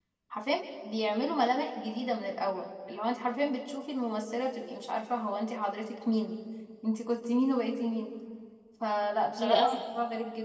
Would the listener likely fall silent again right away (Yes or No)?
Yes